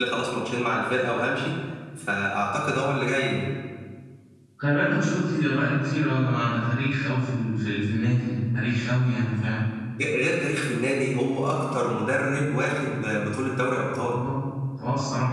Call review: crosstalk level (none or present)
none